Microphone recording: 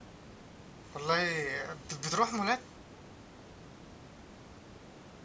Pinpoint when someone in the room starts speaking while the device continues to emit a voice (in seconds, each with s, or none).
0.9 s